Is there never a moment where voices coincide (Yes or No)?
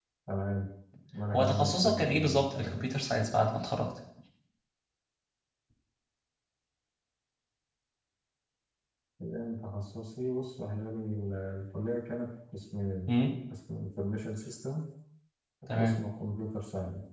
No